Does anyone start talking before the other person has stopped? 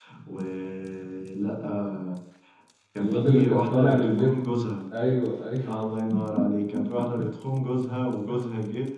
Yes, from 3.0 s

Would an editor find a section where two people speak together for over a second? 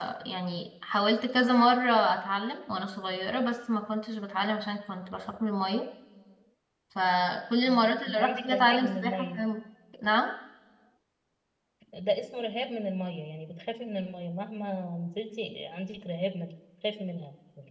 Yes, from 7.7 s

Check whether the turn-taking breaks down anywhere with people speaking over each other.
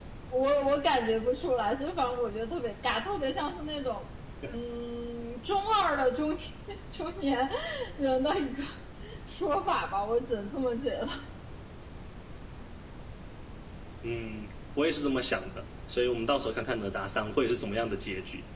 No

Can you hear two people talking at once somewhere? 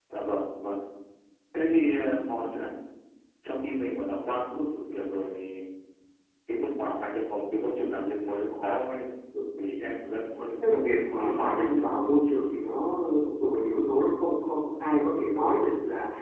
Yes, from 10.6 s

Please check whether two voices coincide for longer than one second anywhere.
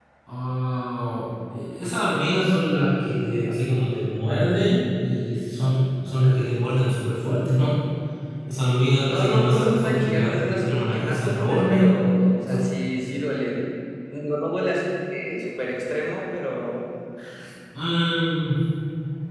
Yes, from 9.1 s

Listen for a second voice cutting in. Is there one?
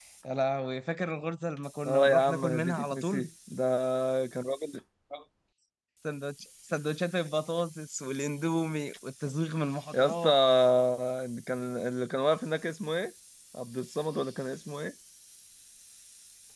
Yes, from 1.9 s

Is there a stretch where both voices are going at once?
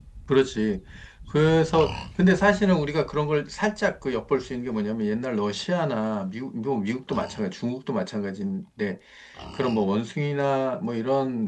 No

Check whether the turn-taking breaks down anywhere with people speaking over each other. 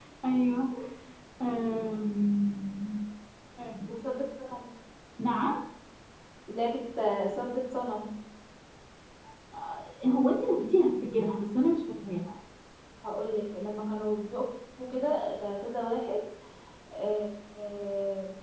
No

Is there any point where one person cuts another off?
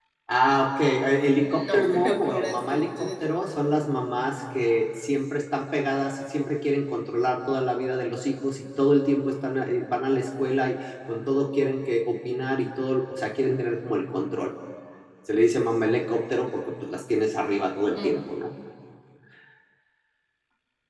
Yes, from 1.4 s

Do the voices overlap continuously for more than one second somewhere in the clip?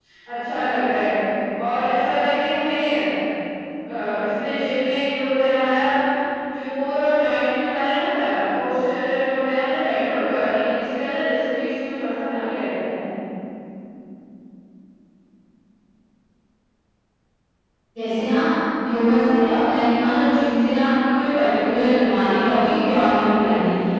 No

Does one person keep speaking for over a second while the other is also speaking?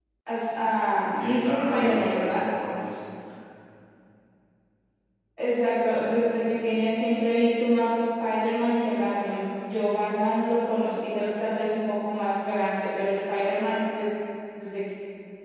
Yes, from 1.2 s

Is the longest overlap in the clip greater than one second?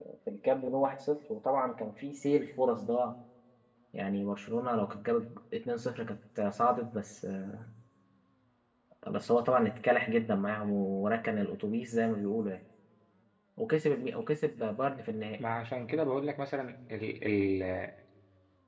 No

